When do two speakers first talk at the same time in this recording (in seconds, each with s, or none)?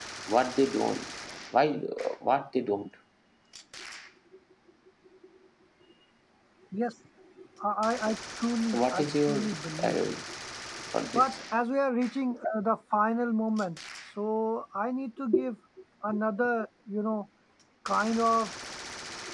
8.7 s